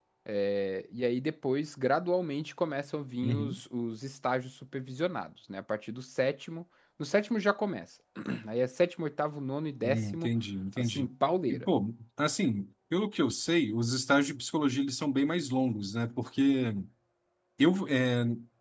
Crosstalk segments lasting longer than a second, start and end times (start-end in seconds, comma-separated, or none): none